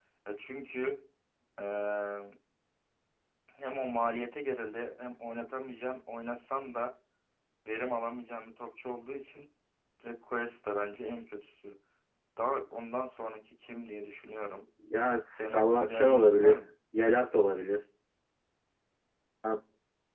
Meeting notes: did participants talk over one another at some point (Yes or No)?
Yes